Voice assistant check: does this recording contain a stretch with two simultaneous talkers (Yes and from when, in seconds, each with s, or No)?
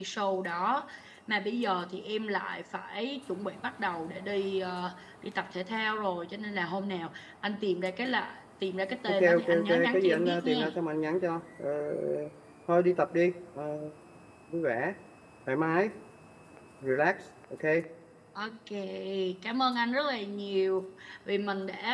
Yes, from 9.1 s